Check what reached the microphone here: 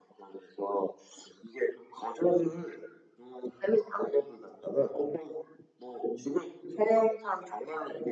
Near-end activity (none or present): none